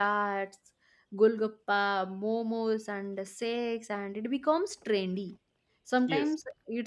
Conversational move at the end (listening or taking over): listening